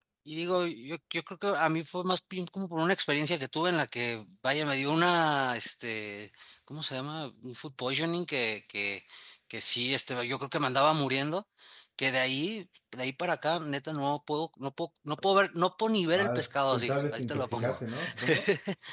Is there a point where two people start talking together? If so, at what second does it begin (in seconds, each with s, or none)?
16.1 s